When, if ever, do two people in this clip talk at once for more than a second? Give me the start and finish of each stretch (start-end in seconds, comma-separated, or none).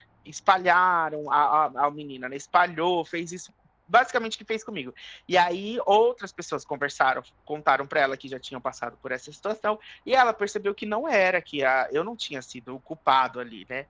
none